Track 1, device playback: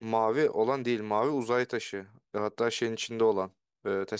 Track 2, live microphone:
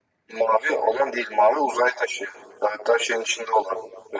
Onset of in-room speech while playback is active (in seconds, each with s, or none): none